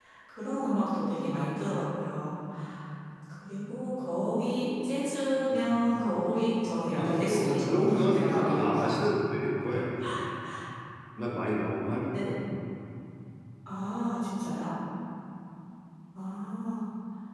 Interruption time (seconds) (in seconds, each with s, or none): 7.0 s